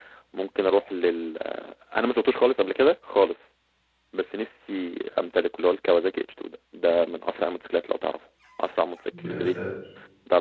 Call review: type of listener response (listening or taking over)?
listening